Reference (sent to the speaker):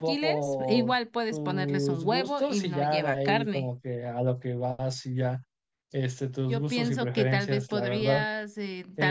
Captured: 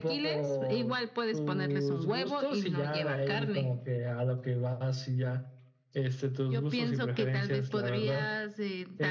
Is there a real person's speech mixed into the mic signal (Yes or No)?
No